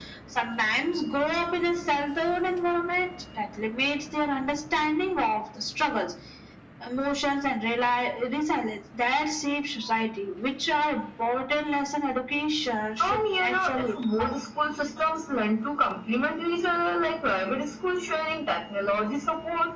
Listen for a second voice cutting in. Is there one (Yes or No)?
Yes